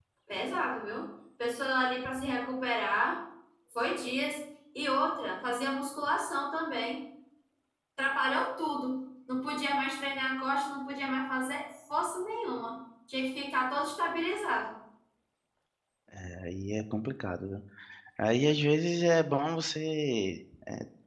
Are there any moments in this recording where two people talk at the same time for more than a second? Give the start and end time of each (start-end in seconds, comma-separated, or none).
none